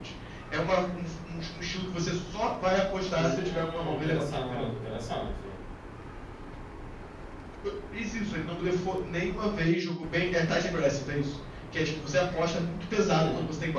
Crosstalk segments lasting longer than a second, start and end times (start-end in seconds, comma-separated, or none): 3.1-4.7